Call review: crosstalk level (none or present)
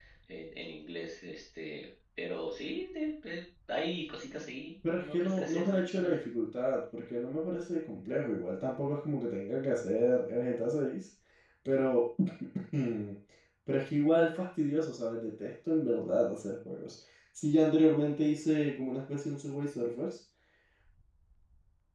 present